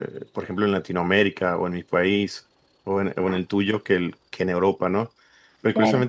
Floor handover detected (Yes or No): No